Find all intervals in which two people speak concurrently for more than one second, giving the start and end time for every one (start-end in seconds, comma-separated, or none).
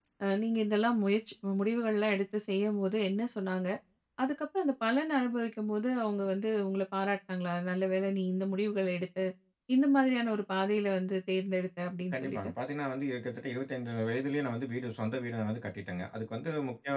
none